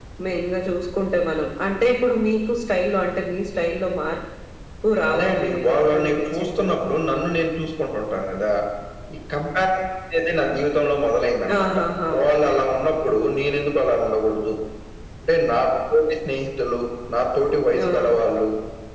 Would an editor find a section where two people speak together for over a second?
Yes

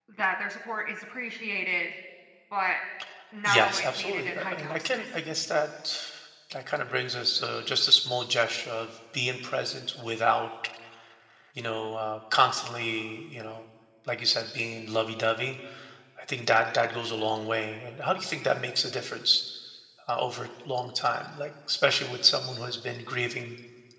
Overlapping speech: Yes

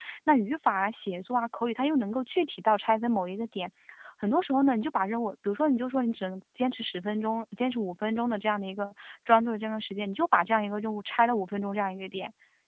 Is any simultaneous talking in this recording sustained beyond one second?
No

